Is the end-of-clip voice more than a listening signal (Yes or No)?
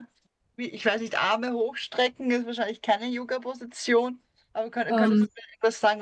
No